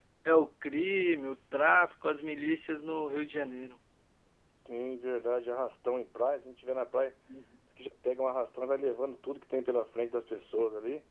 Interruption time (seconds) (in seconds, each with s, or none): none